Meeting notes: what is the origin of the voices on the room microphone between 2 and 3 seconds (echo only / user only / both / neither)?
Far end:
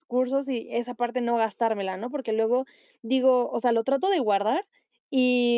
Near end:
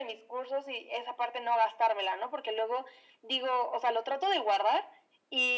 echo only